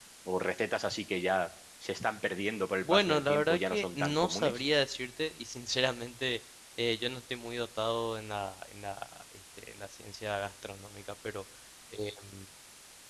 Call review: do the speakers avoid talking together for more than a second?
No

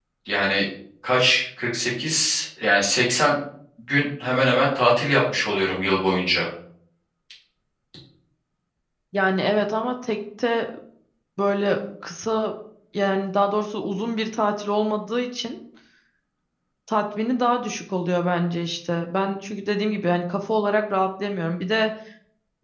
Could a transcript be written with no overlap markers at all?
Yes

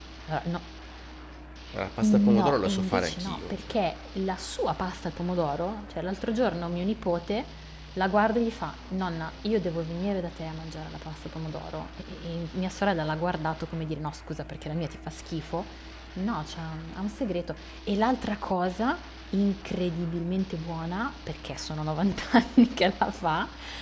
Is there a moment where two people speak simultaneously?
Yes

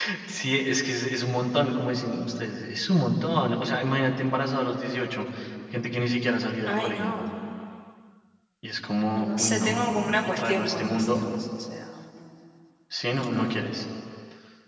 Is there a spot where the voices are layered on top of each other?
Yes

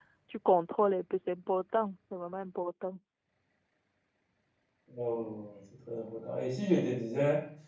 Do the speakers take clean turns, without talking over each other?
Yes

